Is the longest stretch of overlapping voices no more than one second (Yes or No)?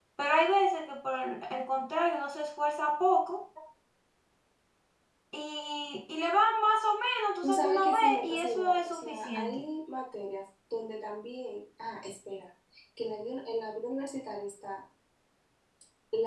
No